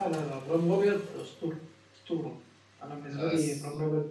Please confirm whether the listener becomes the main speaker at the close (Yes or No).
No